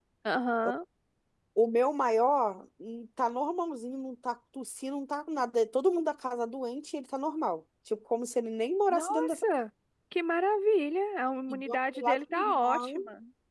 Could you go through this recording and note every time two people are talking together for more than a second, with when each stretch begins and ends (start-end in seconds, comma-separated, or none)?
11.5-13.0